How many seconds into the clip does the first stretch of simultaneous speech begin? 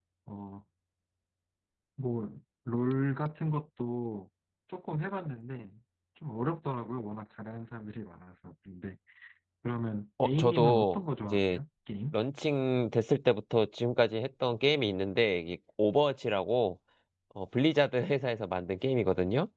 10 s

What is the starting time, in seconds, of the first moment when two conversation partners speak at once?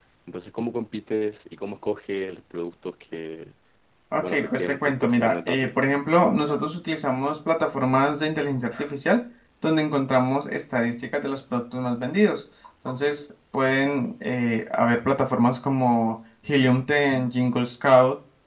4 s

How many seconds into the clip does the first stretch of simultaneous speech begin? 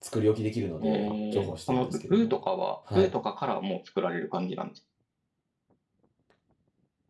1 s

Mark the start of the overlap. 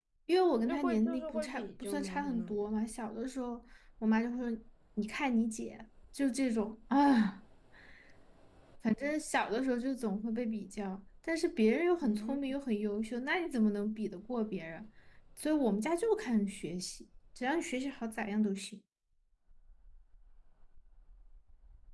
1 s

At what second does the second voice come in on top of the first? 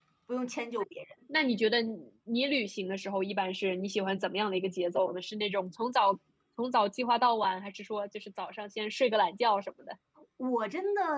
none

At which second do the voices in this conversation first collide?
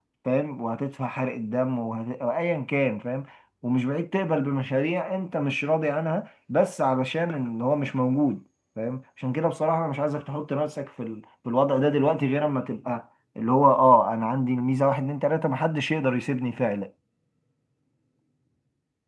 none

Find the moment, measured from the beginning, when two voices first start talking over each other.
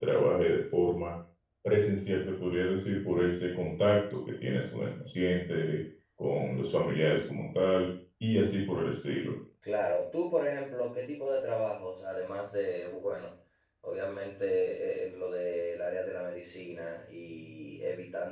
none

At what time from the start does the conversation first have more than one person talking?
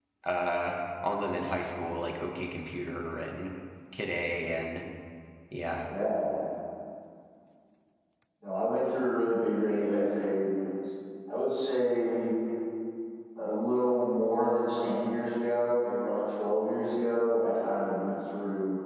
none

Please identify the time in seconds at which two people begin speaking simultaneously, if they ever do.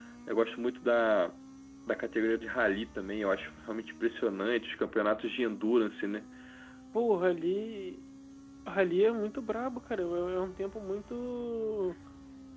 none

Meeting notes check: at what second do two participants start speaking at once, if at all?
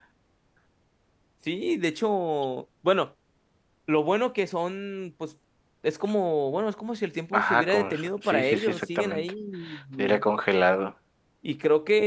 7 s

